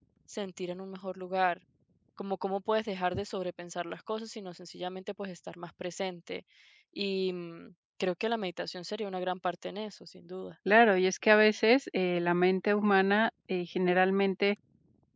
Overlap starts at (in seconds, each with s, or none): none